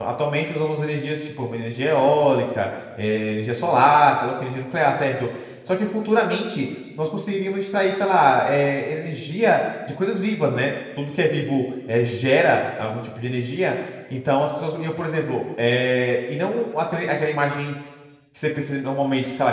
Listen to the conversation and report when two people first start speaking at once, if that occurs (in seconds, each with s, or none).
none